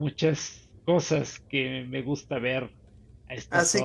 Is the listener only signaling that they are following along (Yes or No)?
No